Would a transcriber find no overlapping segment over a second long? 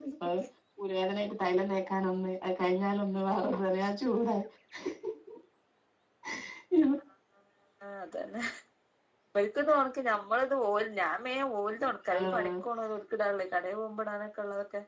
Yes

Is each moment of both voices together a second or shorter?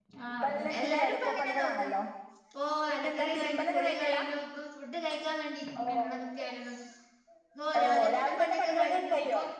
No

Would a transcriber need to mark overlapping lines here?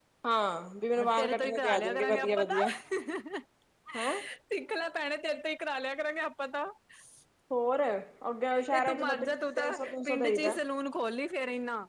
Yes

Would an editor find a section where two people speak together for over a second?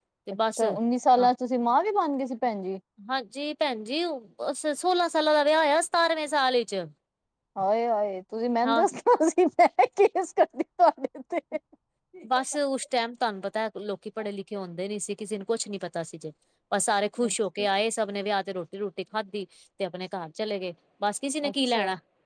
No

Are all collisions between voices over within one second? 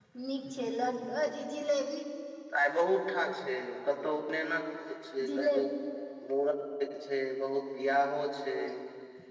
Yes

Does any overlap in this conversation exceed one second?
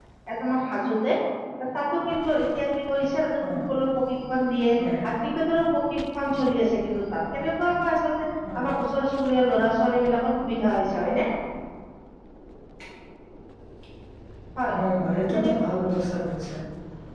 No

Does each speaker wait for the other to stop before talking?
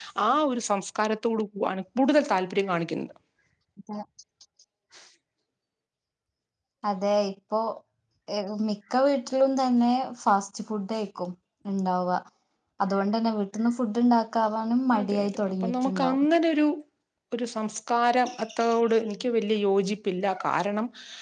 No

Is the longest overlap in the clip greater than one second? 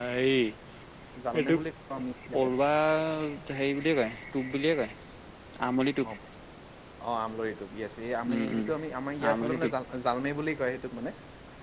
No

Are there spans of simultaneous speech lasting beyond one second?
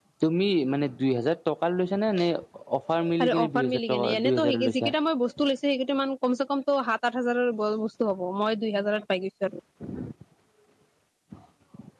Yes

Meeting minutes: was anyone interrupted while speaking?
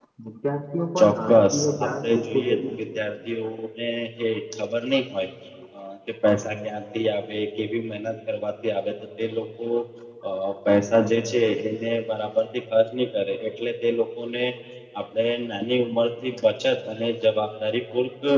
Yes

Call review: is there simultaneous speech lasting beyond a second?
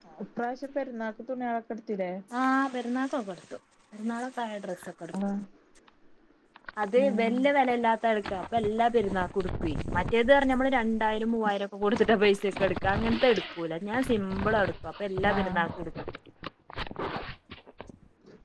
No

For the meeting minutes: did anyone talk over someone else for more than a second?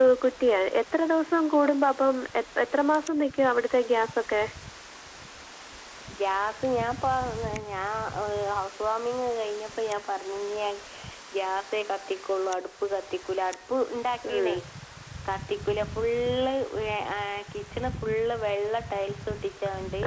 No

